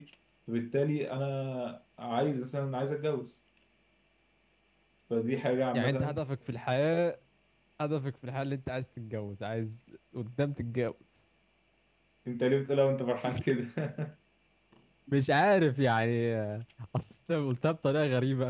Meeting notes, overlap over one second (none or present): none